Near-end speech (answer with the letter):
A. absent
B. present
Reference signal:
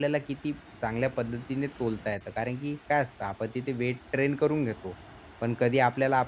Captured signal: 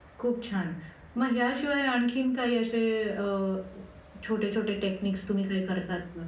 B